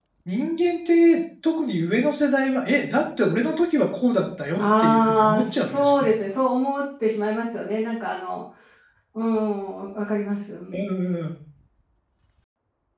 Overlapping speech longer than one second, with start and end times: 4.6-6.1

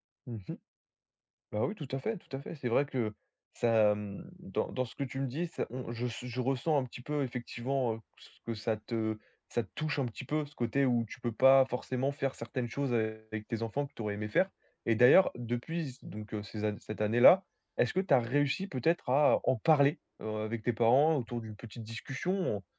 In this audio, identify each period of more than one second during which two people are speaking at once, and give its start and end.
none

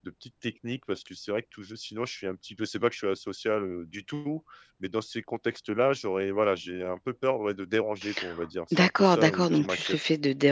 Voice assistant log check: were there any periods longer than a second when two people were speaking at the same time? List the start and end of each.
8.7-10.0

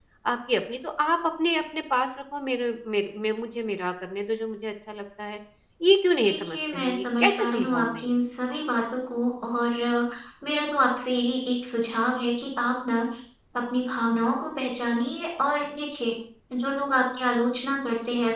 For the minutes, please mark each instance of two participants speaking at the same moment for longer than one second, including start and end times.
6.2-8.1

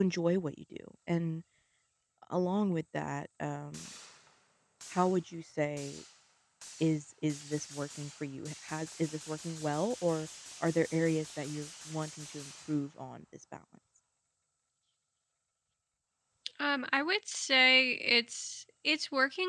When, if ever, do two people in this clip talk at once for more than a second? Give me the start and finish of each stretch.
none

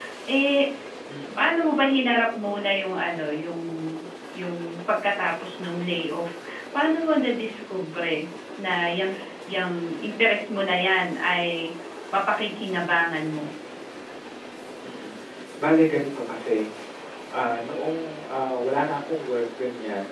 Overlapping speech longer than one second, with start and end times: none

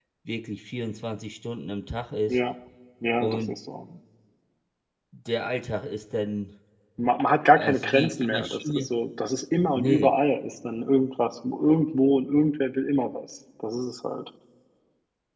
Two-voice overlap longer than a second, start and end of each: 7.5-8.9

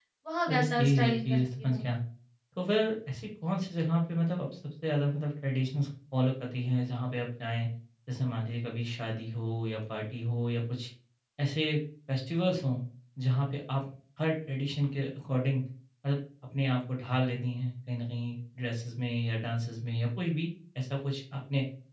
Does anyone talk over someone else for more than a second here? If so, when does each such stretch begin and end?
0.5-1.8

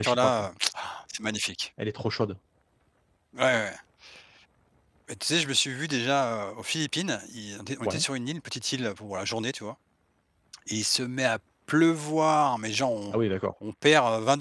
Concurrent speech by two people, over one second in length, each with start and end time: none

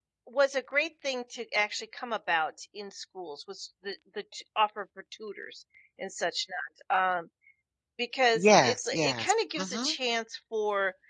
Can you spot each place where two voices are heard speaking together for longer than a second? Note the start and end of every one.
8.3-9.9

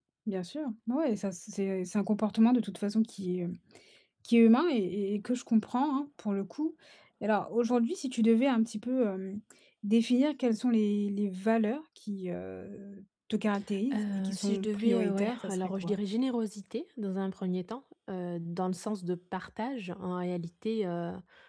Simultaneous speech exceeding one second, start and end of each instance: 13.9-16.0

